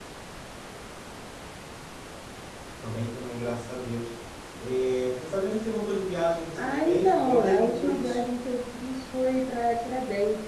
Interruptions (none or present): present